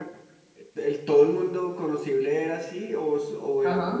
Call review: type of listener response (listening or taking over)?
taking over